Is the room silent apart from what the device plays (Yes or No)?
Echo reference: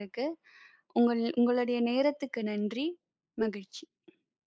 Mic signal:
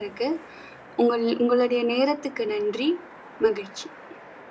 Yes